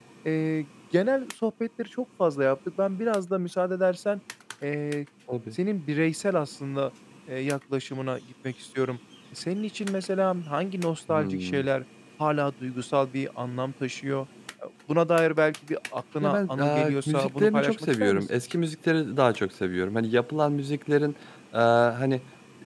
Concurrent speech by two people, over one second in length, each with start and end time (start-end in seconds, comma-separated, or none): 16.2-18.2